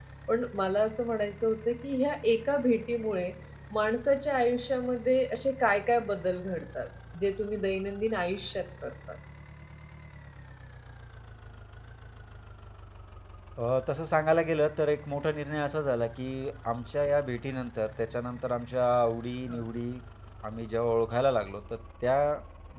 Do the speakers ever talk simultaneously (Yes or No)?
No